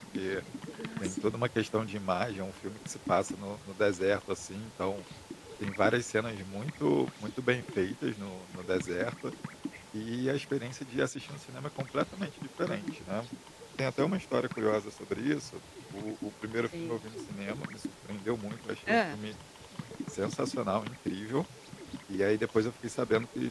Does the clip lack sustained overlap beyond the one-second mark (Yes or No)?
Yes